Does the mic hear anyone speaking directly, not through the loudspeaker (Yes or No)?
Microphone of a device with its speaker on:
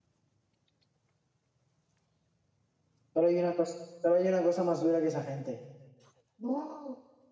Yes